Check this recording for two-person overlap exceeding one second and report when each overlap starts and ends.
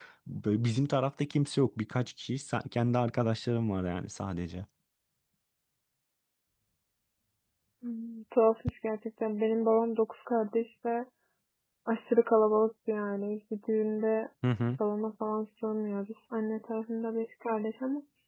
none

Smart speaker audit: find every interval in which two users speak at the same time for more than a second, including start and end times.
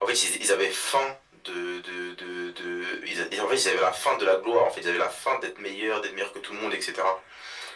none

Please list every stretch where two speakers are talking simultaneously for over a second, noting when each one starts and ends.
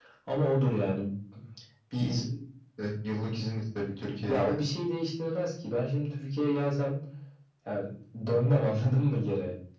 none

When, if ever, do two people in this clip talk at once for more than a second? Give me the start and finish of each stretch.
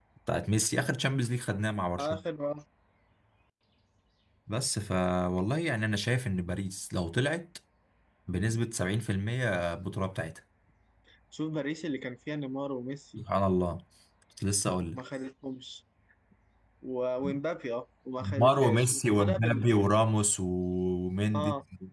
18.2-19.6

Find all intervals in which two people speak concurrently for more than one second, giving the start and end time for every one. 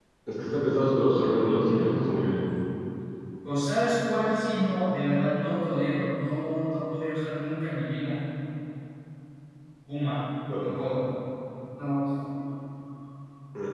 none

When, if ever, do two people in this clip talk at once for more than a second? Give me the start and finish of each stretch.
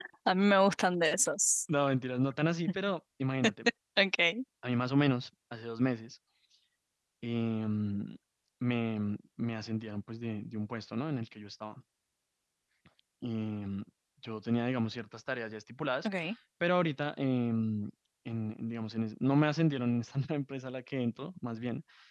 none

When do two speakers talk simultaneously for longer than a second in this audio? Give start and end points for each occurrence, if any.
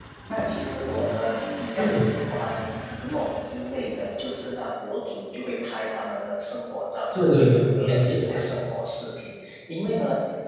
7.1-8.3

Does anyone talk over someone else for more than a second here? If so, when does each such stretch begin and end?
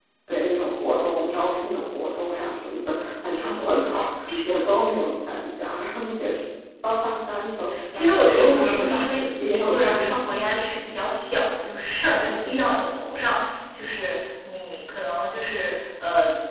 7.9-10.1

